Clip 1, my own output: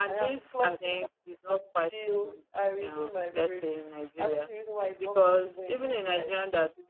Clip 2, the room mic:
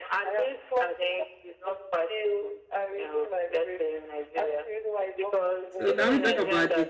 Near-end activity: present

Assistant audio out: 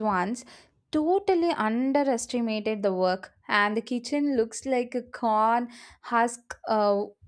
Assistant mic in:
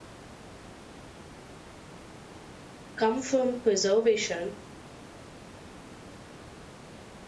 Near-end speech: present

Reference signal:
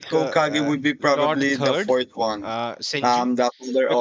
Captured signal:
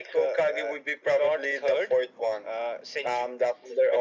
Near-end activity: none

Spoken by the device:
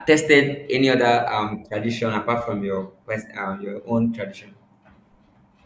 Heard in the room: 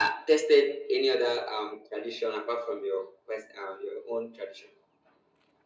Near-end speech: none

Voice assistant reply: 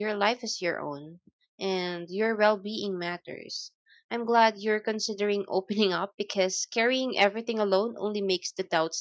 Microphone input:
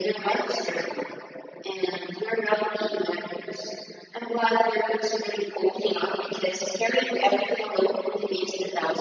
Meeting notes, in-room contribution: none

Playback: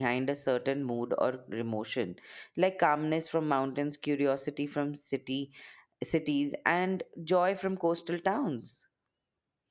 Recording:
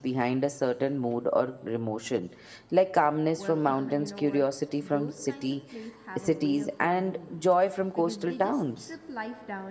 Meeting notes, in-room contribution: present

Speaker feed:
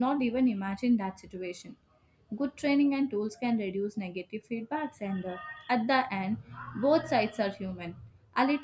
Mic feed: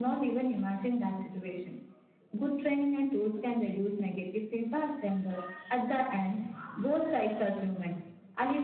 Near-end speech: none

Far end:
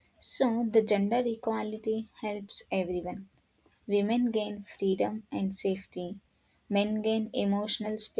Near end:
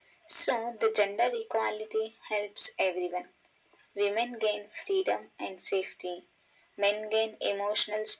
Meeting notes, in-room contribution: none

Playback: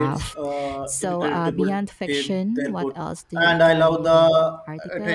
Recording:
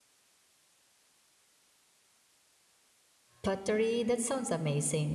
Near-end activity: present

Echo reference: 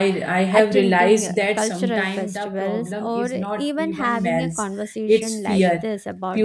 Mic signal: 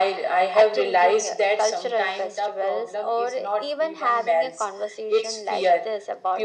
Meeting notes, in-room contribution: none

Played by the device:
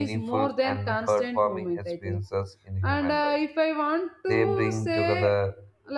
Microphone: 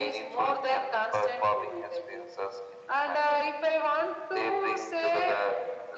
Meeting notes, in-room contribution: none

